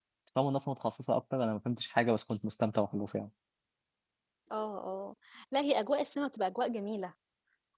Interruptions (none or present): none